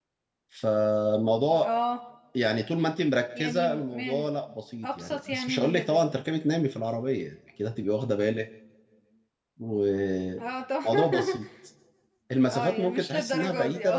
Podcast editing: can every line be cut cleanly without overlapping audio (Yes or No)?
No